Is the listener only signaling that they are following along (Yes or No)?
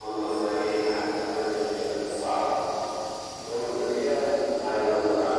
Yes